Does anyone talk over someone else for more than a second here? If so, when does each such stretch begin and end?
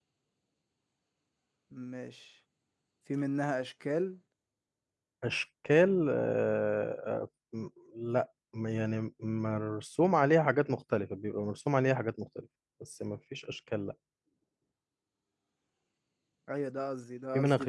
none

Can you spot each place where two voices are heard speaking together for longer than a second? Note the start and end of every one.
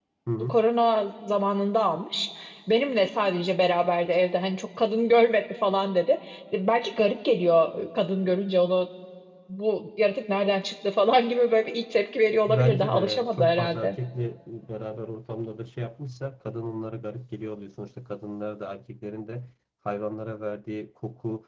12.5-14.0

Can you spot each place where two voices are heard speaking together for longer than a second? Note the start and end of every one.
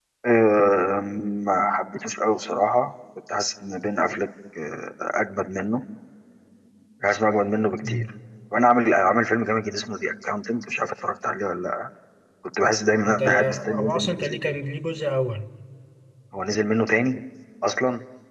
13.1-14.5

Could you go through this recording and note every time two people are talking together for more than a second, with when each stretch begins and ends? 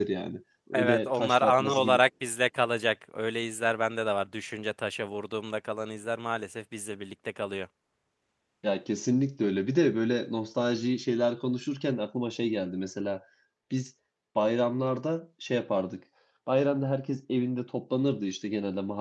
0.7-2.0

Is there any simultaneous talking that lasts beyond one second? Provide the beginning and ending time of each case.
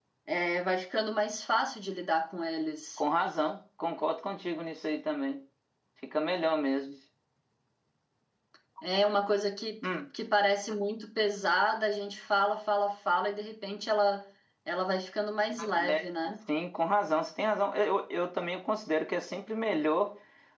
none

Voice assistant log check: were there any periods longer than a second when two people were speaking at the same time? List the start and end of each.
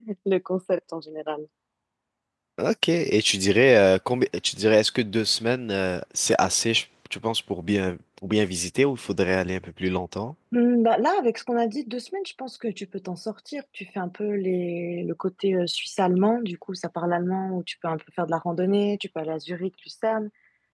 none

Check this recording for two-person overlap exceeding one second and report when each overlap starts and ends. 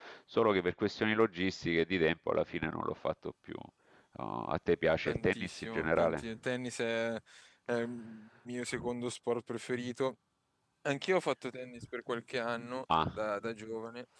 5.0-6.3

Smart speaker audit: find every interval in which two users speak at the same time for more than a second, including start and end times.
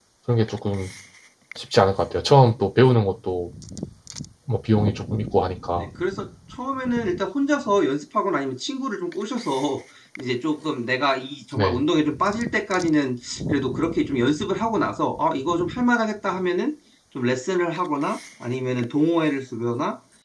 none

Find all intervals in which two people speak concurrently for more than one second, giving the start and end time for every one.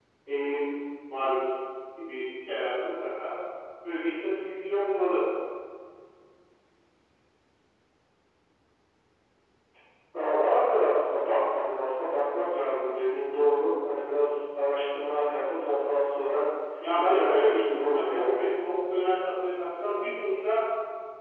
17.1-18.5

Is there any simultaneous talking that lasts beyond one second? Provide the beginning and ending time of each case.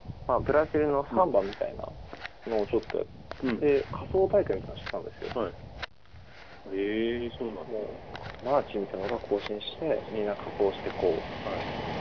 none

